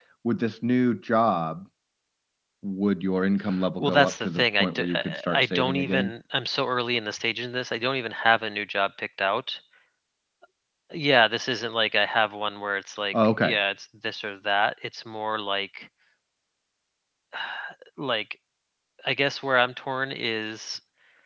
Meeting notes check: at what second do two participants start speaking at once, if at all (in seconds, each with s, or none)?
3.8 s